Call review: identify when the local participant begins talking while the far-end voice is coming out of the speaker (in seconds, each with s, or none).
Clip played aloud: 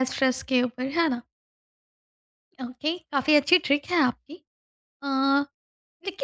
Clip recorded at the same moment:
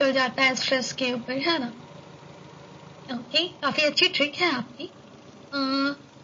none